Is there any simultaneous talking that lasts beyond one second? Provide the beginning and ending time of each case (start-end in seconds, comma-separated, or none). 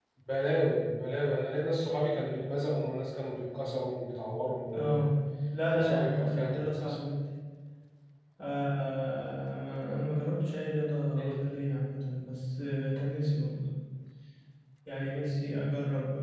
5.7-7.0